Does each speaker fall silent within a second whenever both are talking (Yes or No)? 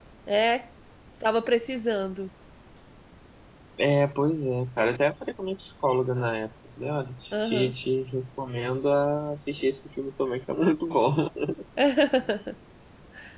Yes